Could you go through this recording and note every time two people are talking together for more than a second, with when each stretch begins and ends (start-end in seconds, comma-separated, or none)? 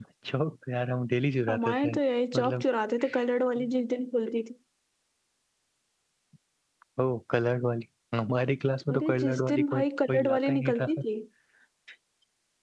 8.9-10.9